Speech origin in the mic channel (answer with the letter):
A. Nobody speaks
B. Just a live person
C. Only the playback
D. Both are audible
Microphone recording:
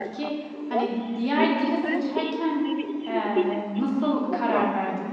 D